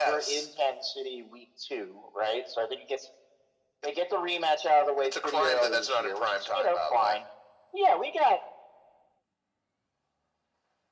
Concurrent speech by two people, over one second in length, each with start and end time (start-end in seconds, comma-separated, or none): 5.0-7.2